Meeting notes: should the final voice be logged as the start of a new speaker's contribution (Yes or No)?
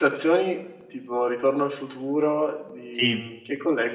No